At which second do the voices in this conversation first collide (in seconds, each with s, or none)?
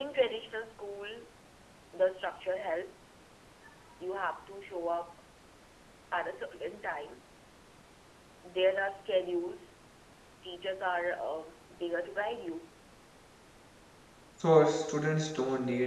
none